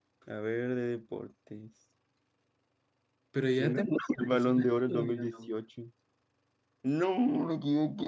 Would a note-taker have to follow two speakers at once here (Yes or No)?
Yes